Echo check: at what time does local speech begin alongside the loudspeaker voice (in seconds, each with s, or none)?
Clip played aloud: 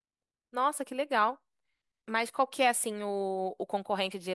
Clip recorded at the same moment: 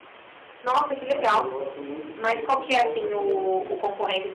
1.0 s